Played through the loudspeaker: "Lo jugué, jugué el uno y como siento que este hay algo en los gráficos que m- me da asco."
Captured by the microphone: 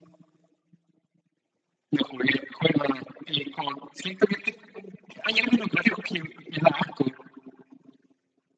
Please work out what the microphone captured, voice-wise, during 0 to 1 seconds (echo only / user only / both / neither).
neither